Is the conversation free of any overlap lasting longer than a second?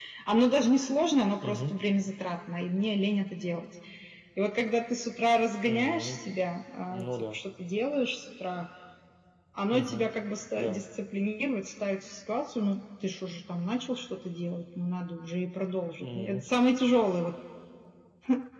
Yes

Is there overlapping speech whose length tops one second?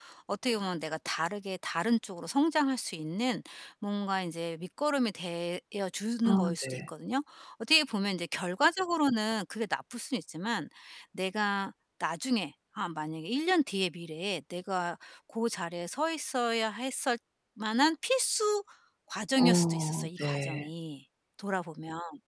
Yes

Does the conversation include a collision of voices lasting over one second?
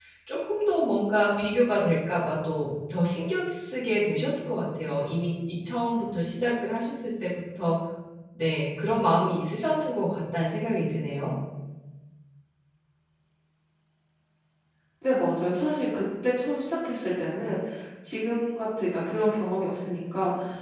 No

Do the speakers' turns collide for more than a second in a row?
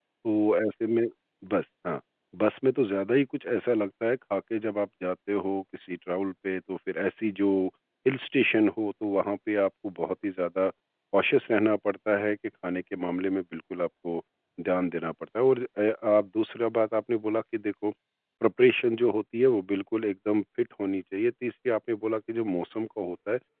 No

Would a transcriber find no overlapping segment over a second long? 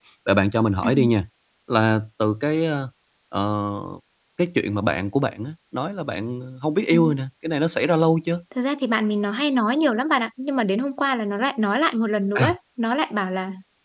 Yes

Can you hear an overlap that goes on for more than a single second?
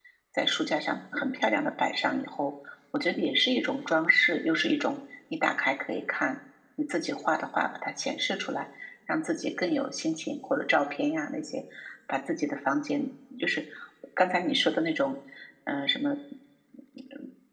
No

